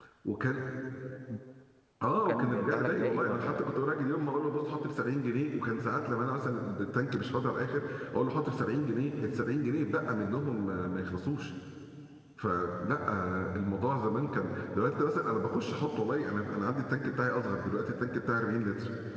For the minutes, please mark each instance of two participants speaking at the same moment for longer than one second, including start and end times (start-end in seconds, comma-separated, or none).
2.1-3.7